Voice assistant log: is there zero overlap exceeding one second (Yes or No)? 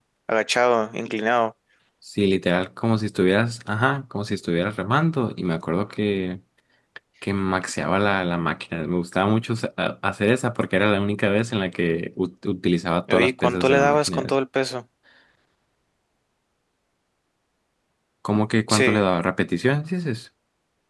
No